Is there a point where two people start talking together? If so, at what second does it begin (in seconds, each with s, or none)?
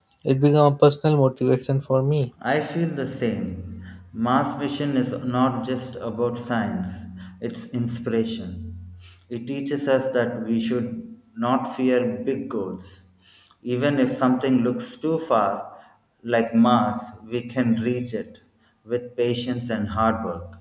none